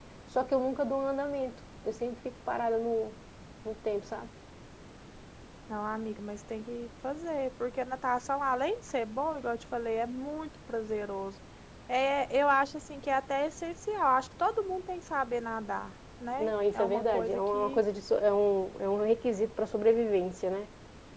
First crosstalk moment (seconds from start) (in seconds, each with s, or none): 16.4 s